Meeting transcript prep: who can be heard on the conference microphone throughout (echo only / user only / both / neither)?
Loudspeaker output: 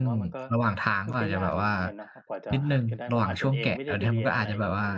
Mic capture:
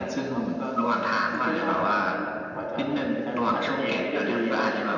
echo only